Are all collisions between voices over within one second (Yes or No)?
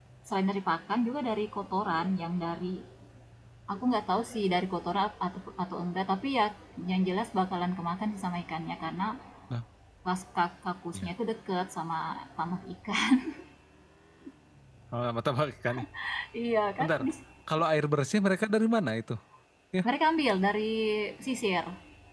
Yes